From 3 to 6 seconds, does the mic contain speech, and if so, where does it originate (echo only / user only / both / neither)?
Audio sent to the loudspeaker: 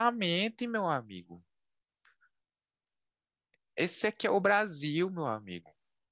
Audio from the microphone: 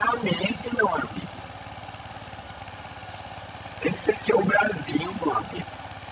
echo only